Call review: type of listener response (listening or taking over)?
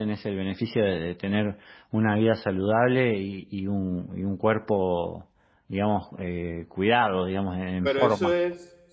taking over